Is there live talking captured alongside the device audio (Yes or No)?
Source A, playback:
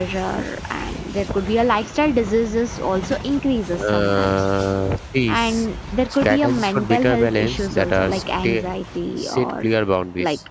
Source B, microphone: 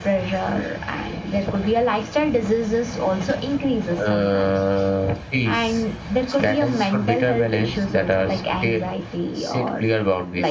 No